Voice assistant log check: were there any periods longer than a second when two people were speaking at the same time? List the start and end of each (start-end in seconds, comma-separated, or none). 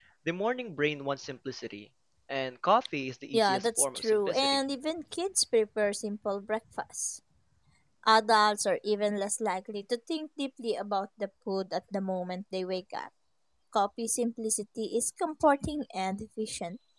3.3-4.6